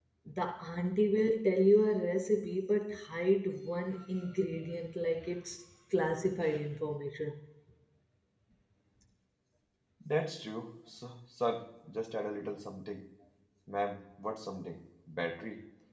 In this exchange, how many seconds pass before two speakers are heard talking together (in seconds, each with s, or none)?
none